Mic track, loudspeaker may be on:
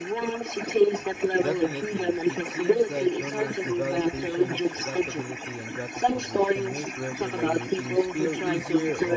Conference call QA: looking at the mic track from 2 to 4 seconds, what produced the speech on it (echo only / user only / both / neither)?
both